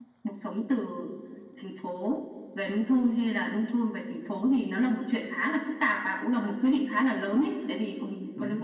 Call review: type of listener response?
listening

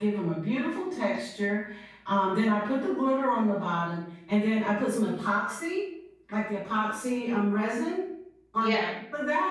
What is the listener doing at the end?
listening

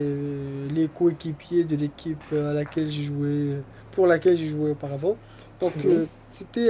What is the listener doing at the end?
listening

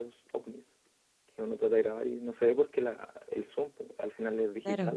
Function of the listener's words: listening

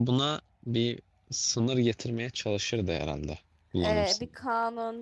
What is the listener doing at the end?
taking over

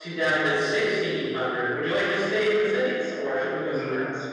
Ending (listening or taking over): taking over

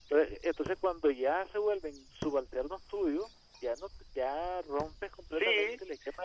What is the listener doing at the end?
taking over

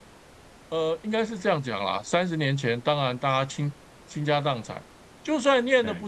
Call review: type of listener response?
listening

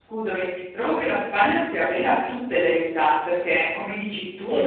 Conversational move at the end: listening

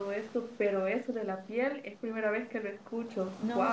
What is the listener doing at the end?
taking over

